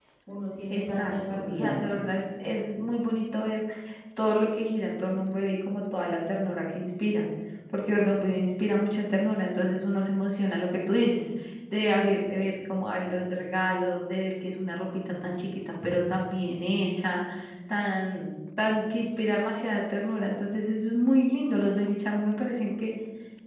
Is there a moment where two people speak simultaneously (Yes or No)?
Yes